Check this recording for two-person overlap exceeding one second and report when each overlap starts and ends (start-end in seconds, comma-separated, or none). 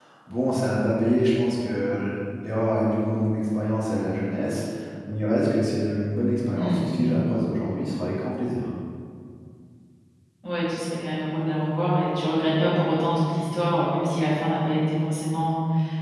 none